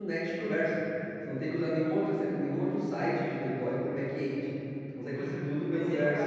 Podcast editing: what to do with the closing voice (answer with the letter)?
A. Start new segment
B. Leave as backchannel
A